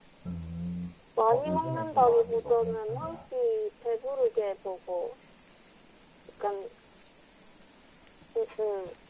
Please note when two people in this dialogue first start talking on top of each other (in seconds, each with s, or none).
1.3 s